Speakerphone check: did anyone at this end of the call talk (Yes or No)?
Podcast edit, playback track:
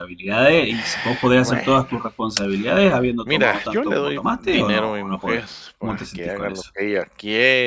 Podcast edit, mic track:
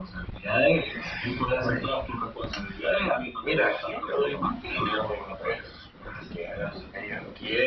No